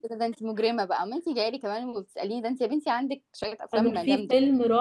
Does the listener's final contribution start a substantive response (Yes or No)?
Yes